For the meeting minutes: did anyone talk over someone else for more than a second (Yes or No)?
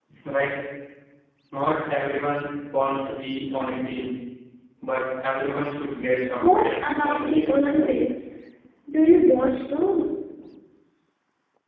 Yes